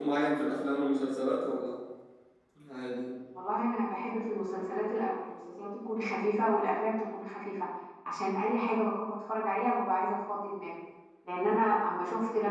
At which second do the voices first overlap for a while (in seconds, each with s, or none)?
none